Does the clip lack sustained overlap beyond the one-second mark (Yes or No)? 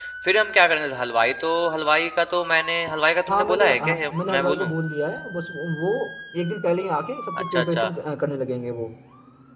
No